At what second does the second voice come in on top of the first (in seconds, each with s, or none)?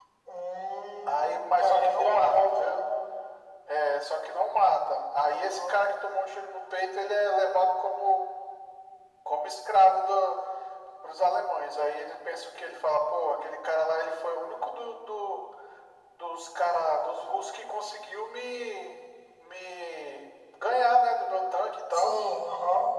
1.0 s